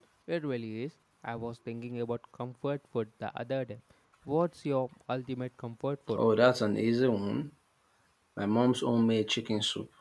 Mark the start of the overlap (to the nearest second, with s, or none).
none